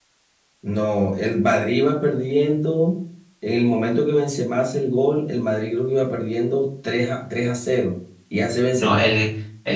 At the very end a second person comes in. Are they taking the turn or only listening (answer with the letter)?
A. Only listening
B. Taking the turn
B